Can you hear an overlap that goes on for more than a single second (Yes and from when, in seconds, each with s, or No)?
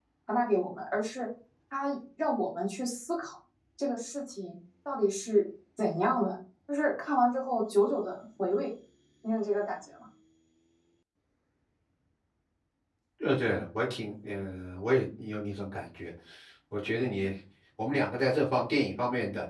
No